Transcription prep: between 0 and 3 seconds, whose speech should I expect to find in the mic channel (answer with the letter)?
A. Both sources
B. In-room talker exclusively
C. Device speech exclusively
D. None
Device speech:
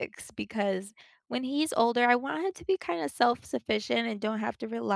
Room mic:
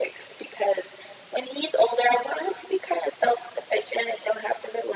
C